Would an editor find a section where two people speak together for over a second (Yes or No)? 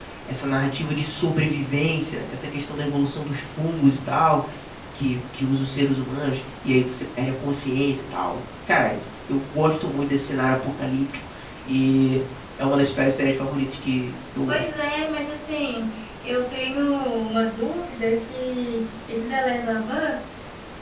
No